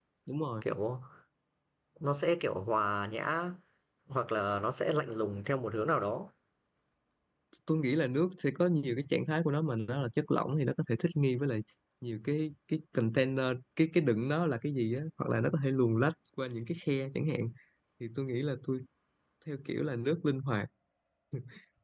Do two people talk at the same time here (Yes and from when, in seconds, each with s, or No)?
No